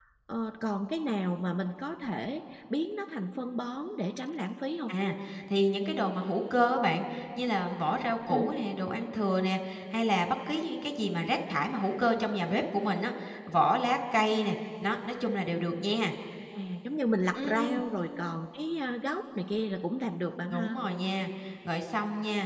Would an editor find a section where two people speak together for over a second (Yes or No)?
No